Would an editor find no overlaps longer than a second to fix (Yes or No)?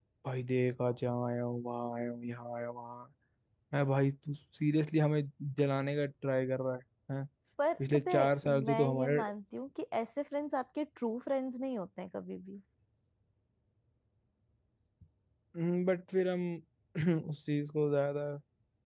No